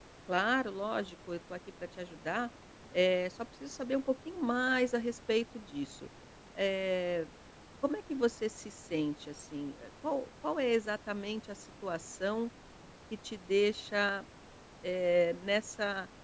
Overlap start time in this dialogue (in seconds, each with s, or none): none